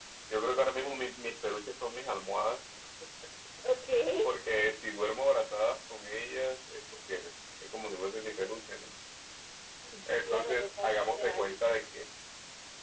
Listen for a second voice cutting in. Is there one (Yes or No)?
Yes